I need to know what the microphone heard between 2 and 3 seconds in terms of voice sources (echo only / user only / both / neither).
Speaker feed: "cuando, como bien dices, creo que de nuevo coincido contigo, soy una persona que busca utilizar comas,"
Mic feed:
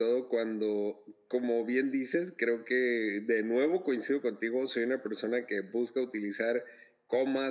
echo only